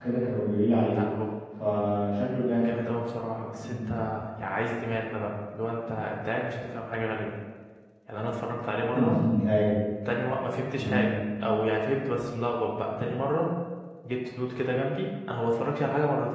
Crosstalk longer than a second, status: none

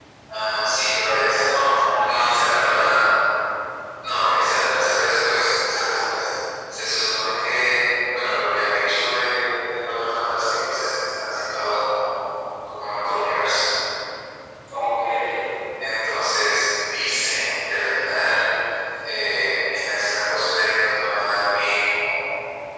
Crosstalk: present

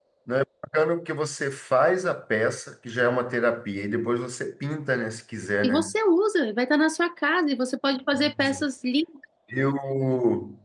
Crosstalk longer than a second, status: none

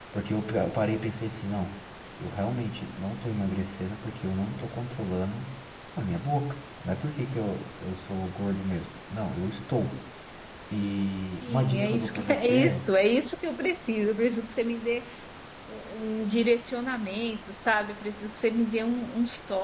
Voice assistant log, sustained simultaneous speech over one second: present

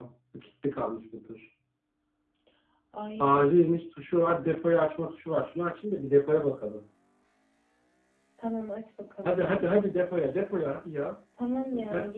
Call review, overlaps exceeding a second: none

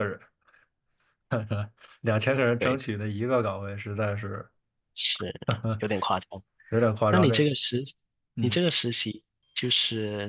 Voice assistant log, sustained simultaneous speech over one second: none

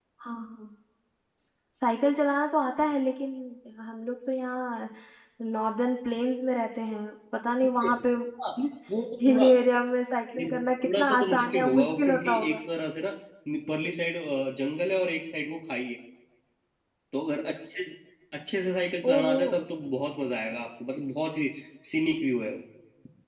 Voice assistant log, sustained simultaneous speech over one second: present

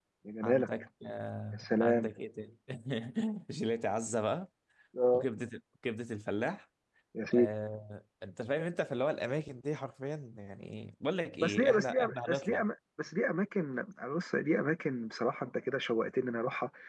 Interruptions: present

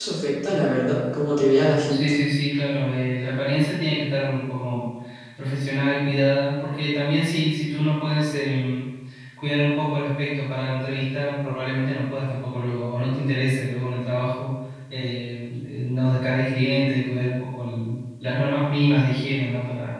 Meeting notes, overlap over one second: none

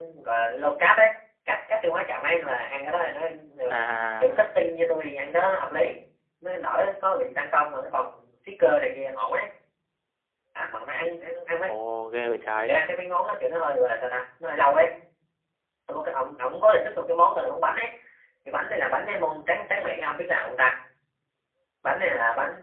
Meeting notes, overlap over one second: none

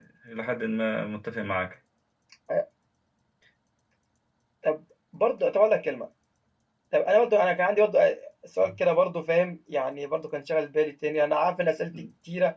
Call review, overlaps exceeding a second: none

